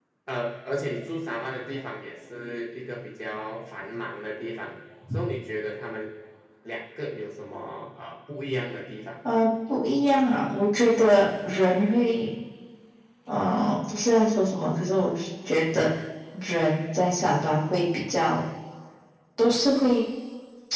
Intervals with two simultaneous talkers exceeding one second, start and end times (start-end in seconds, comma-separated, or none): none